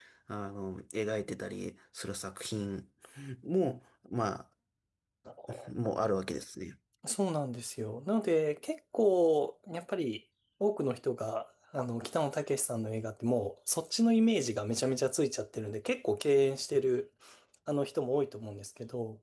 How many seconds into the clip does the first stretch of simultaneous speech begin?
none

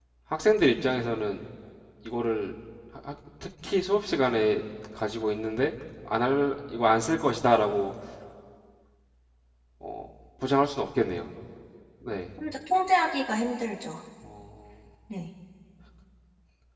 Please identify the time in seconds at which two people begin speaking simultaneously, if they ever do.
none

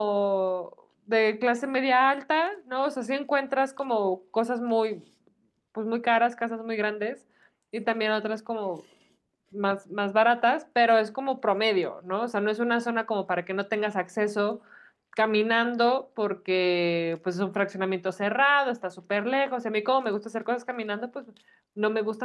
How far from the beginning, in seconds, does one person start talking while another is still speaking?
none

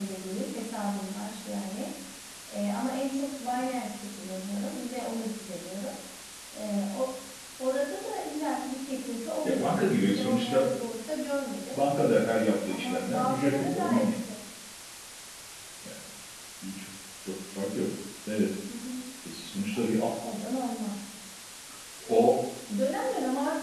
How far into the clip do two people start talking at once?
9.4 s

